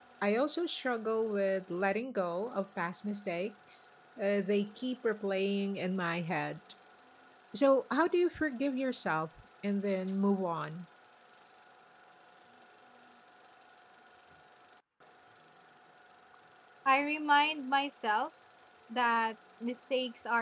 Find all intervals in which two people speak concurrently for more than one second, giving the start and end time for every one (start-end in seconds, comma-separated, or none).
none